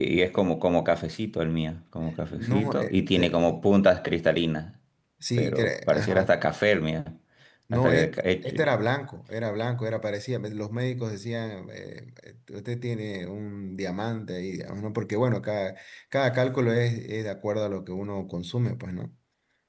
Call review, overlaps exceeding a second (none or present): present